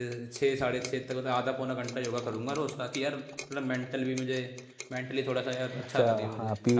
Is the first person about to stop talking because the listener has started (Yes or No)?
Yes